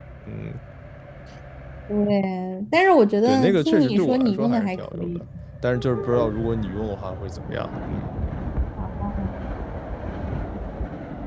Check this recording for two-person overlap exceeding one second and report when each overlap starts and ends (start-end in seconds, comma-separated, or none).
3.2-5.2